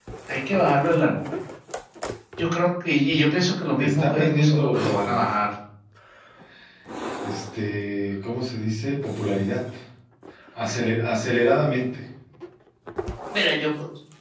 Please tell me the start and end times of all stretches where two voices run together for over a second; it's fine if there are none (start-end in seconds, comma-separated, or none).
3.8-5.2